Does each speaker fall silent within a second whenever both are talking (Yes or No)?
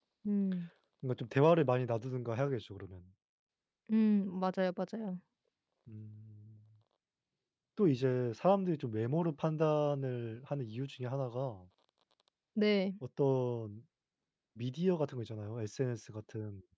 Yes